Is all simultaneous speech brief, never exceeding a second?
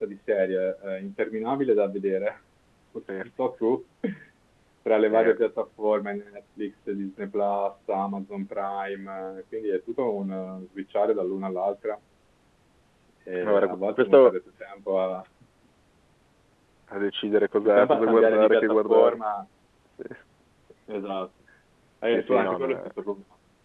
No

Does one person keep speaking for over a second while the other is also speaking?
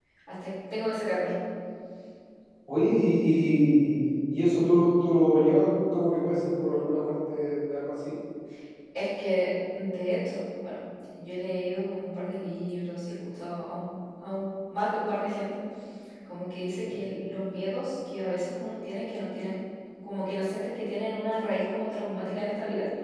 No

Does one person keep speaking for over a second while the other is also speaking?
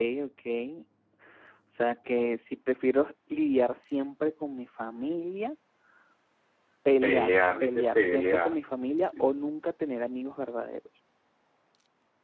Yes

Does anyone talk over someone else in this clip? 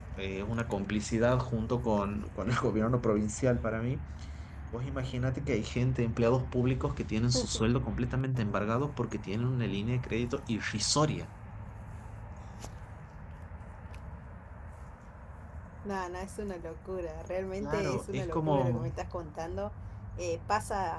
Yes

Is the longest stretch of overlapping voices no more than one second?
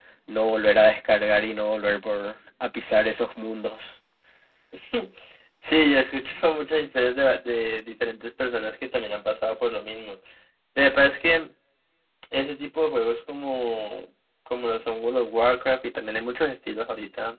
Yes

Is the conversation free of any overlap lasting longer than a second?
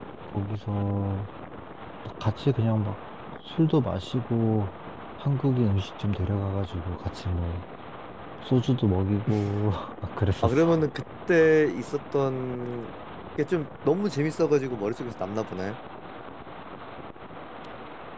Yes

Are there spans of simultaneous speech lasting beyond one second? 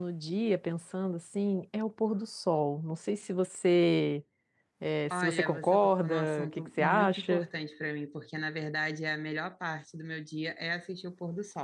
Yes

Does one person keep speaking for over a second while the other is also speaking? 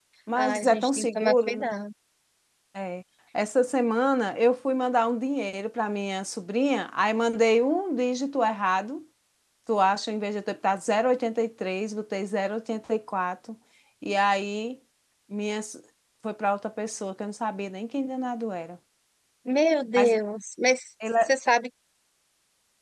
Yes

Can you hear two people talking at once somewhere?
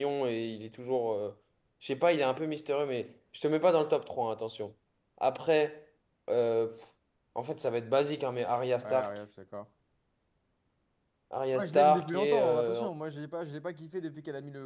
Yes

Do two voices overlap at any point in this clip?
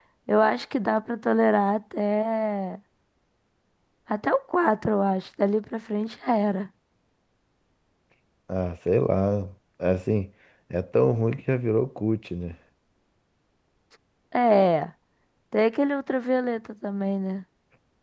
No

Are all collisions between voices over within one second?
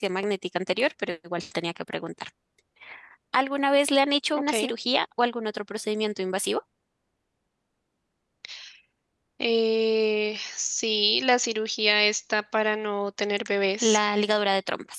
Yes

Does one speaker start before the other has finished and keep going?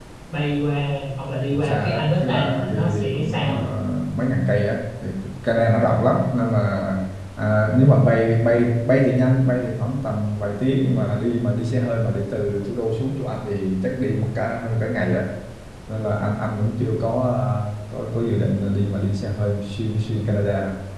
Yes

